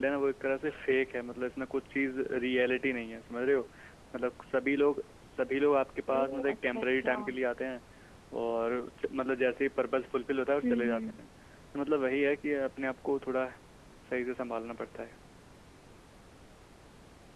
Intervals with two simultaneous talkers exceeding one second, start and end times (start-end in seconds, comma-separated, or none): 6.2-7.4